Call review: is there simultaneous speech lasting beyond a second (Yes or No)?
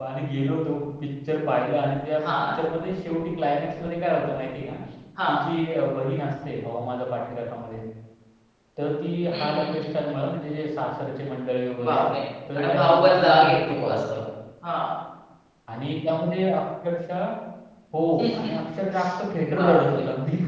Yes